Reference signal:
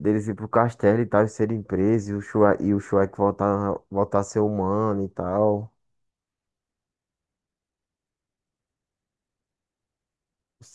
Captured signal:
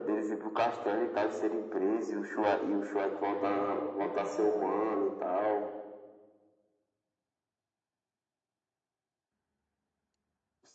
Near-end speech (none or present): present